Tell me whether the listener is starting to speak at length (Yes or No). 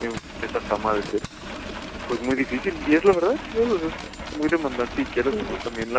No